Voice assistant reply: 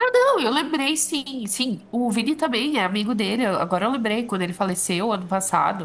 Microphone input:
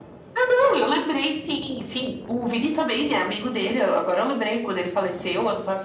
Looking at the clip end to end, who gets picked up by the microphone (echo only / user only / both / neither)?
echo only